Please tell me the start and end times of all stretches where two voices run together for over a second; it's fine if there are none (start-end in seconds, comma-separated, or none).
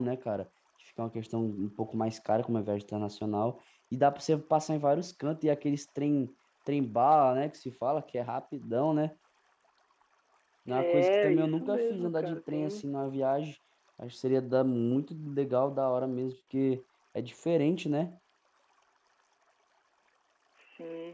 10.7-12.8